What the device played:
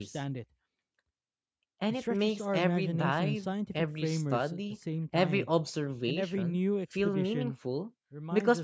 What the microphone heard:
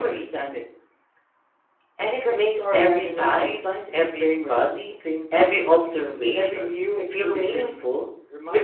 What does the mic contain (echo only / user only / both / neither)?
echo only